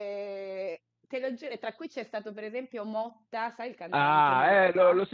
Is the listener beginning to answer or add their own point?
Yes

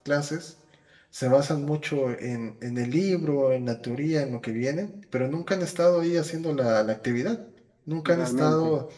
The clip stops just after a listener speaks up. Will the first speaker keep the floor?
Yes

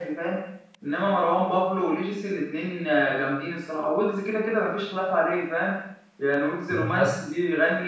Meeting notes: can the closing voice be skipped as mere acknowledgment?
Yes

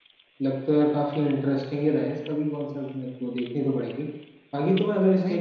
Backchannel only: Yes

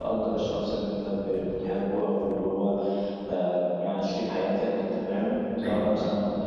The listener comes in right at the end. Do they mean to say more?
No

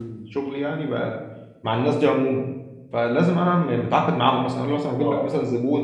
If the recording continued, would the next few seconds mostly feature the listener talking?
No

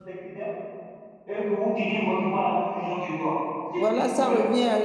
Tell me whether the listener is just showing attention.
No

